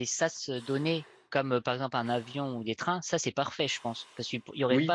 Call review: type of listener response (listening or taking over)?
listening